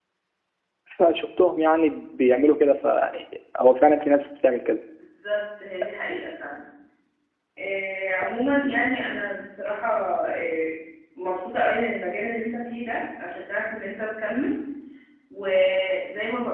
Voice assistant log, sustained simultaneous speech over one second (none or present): none